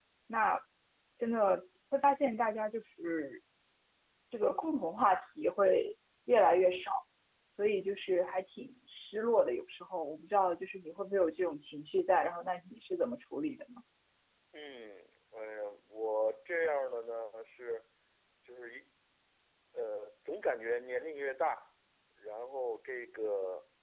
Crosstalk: none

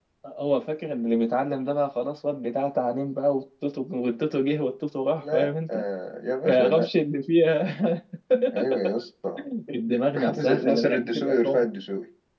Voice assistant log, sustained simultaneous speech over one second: present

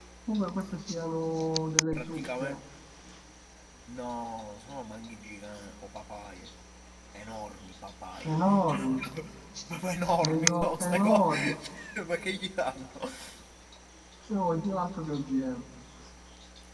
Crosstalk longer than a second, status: present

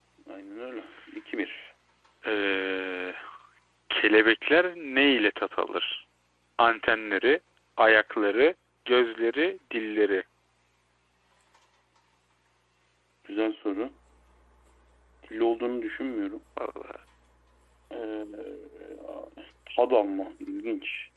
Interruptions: none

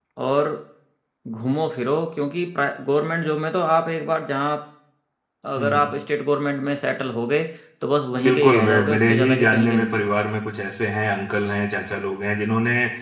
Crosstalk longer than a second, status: present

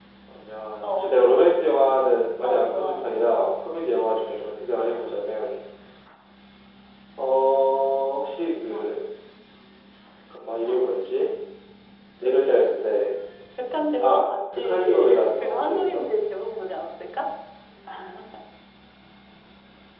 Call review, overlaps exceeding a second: present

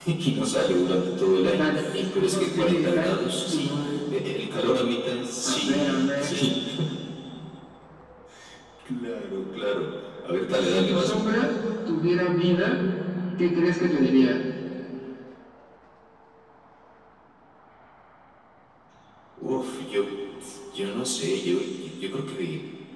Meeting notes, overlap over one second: present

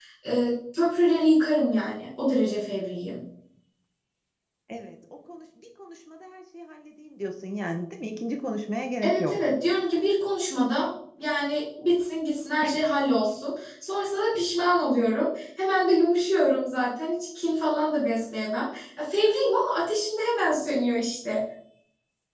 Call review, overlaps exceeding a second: none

